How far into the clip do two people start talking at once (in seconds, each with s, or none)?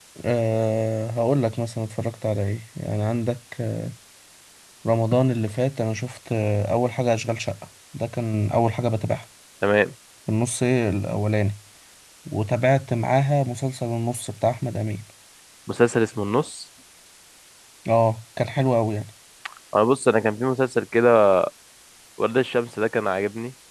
none